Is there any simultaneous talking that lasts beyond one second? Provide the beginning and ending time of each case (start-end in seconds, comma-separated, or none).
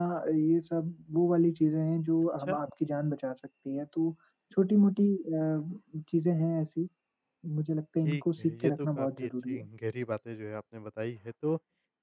8.1-9.7